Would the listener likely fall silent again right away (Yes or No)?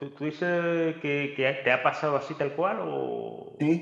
No